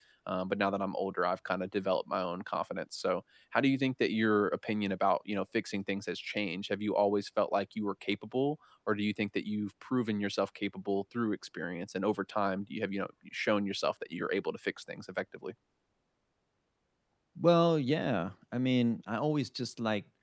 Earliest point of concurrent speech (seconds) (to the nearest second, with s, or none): none